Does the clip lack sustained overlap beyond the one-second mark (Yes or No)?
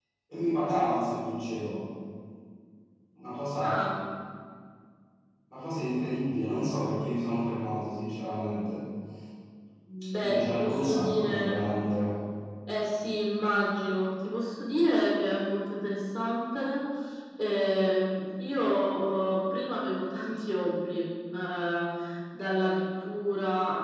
No